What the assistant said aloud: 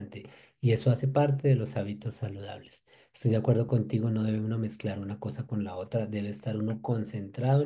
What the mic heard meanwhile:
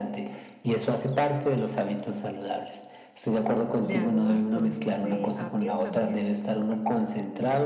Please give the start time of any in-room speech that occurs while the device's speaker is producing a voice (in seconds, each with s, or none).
3.8 s